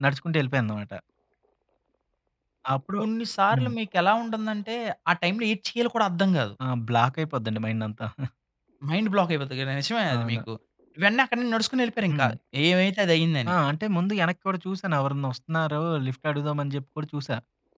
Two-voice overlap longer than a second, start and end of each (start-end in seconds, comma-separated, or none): none